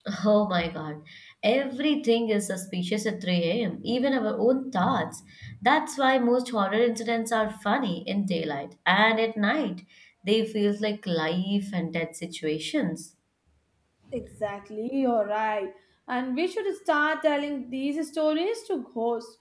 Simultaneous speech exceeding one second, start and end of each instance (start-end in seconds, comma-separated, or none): none